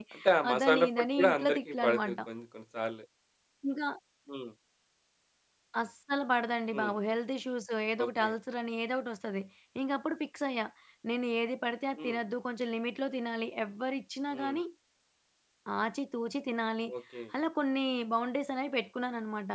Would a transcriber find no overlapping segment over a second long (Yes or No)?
No